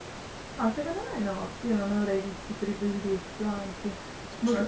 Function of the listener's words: taking over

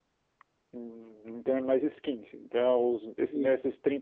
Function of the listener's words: listening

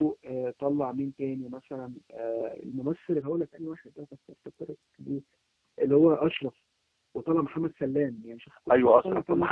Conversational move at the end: taking over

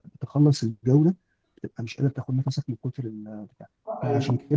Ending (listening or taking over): listening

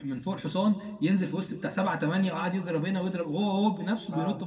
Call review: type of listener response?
taking over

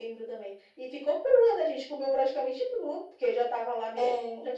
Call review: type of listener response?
listening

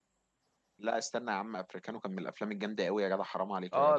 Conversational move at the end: taking over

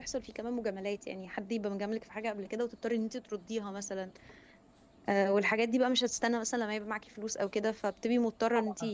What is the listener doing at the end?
taking over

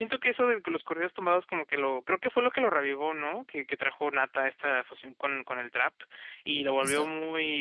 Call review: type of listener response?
listening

